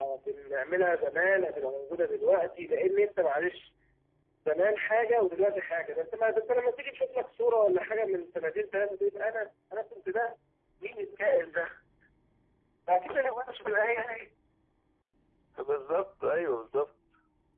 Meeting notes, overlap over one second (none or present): none